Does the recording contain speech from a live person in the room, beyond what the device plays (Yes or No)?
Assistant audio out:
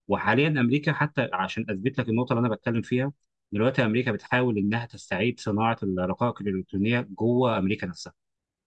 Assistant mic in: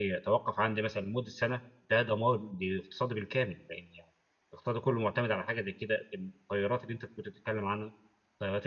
Yes